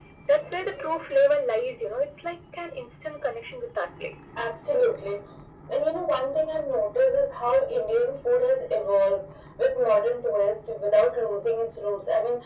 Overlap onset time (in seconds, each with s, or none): none